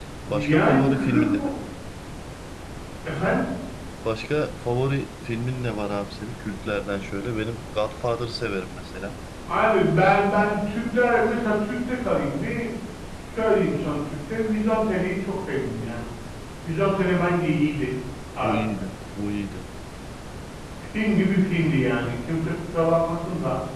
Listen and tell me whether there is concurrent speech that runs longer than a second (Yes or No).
Yes